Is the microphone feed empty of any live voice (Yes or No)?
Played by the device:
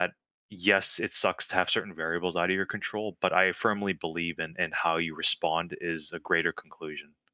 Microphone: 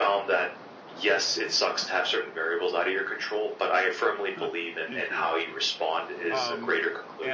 No